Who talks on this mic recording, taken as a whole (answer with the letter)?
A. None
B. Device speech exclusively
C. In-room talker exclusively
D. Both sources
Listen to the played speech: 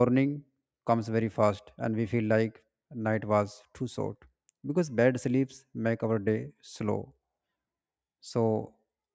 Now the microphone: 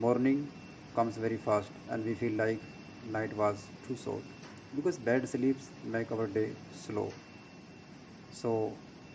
B